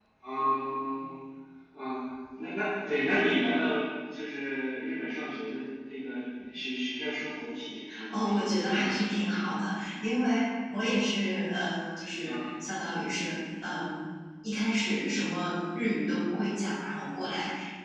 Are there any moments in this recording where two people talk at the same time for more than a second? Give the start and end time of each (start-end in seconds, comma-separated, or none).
8.1-9.3